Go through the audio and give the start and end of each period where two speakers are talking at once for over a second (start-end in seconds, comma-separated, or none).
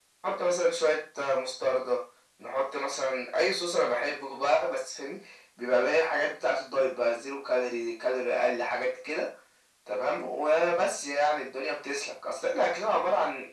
none